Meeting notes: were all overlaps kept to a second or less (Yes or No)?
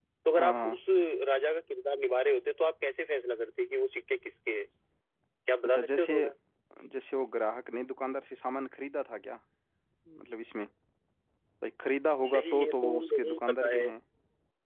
No